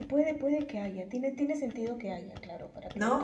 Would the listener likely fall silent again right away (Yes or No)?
No